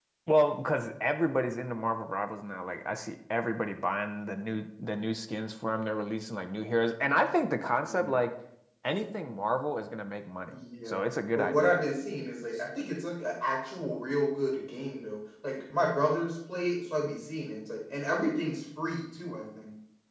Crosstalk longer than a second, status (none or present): none